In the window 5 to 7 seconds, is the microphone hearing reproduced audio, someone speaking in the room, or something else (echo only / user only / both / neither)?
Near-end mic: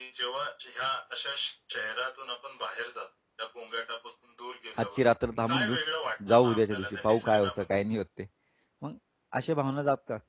both